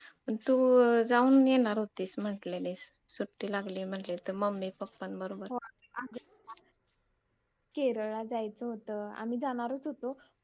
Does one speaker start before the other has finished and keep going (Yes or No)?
No